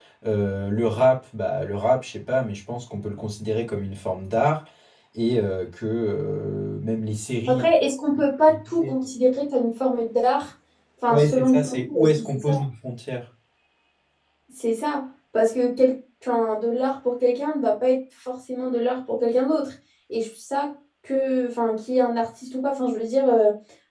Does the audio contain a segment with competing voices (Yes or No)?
Yes